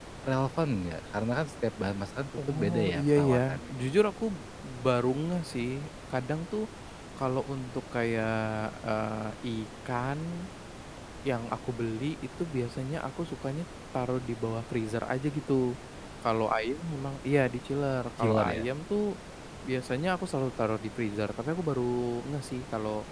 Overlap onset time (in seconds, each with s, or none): 2.4 s